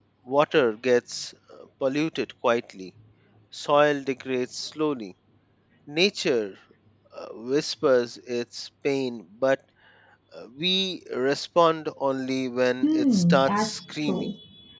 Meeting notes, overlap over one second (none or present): present